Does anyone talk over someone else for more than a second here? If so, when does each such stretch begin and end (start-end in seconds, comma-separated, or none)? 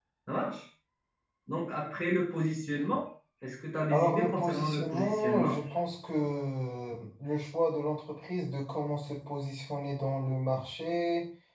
3.9-5.6